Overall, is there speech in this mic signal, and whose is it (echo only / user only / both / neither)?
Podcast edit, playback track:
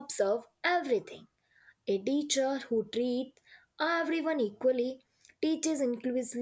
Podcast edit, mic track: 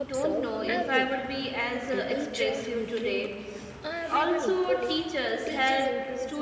both